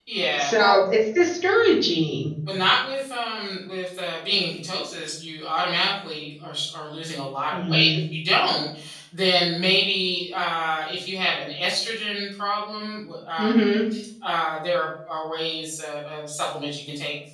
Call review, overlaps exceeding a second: none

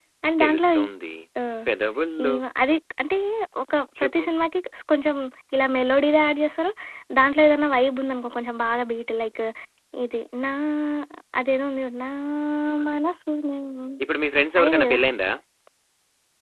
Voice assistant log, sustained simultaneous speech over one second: none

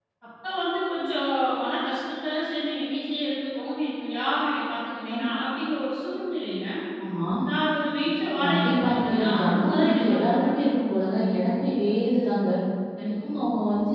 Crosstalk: present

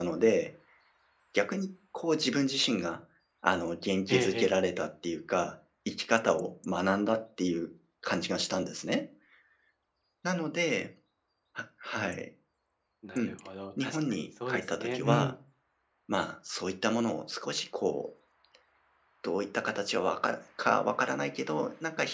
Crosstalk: present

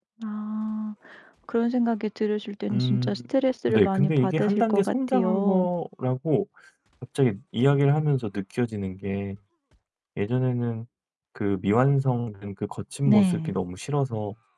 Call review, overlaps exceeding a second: present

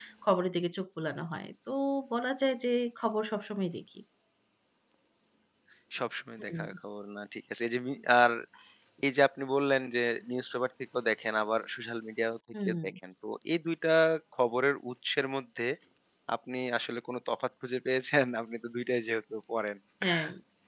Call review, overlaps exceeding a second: none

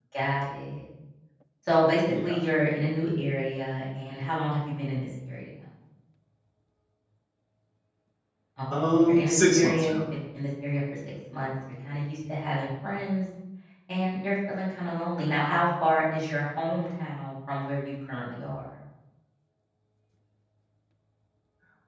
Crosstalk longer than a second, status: present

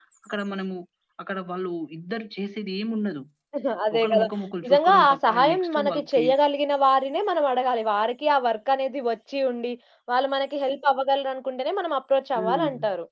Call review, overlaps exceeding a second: present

